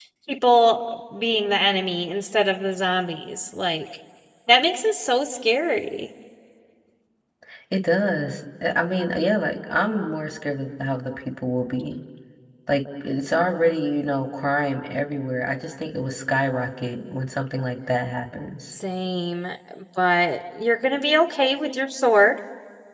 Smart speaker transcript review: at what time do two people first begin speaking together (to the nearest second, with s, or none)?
none